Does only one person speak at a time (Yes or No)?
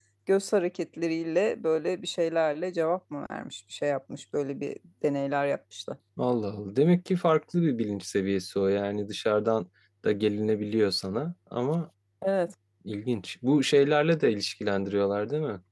Yes